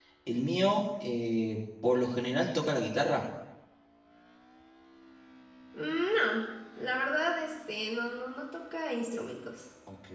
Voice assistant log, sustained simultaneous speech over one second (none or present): none